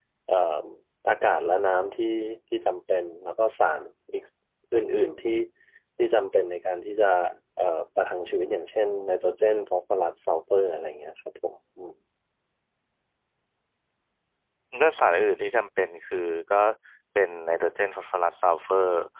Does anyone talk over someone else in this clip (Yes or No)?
No